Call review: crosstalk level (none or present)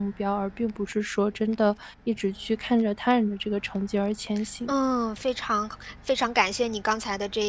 none